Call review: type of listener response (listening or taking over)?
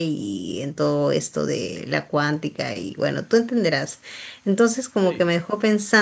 listening